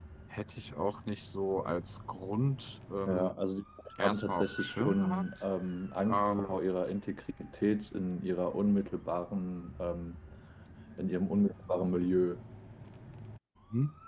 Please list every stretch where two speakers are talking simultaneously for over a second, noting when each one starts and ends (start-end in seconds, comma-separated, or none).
4.0-5.2